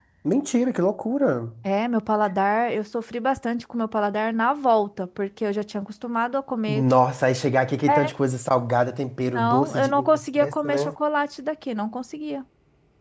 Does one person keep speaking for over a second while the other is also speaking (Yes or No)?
Yes